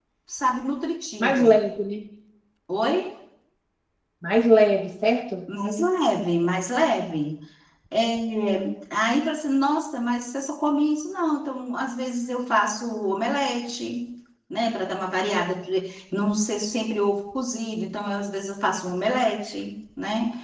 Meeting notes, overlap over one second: none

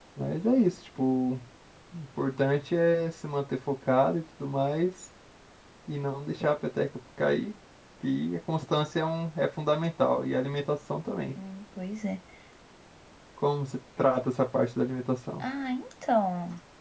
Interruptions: none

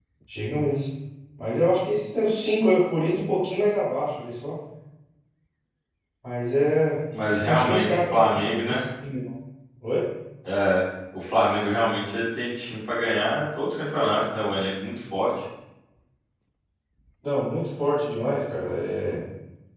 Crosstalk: present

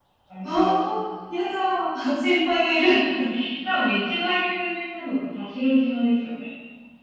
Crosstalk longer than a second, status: none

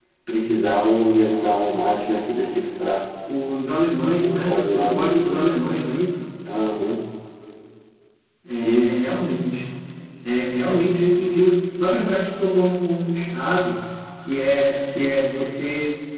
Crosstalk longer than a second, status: present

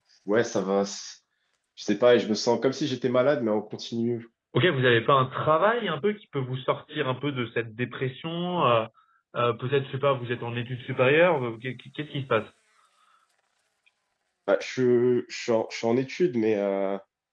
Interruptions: none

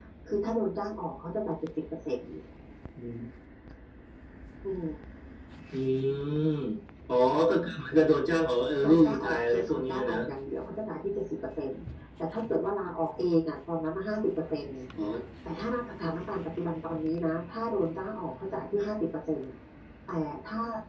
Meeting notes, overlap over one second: present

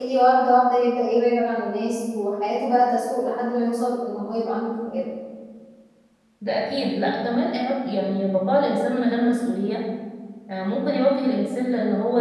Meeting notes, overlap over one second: none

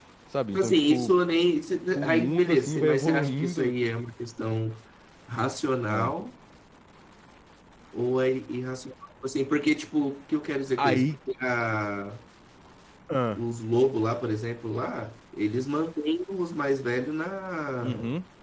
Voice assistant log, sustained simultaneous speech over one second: present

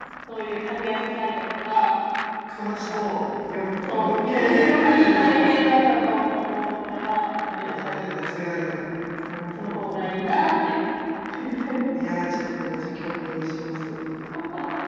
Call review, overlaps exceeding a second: present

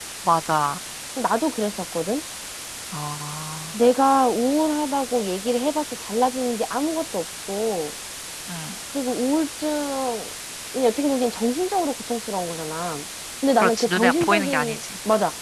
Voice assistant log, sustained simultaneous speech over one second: present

